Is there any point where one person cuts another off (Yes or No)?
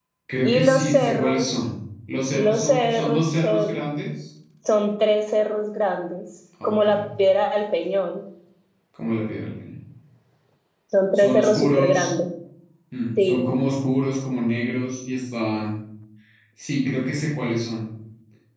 Yes